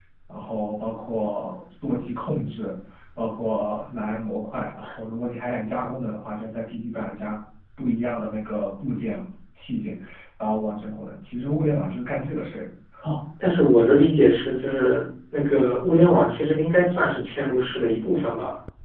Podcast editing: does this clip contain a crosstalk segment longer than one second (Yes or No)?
No